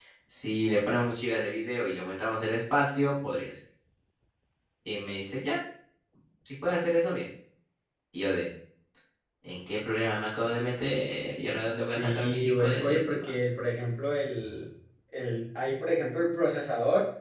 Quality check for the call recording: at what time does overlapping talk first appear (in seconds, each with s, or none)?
12.0 s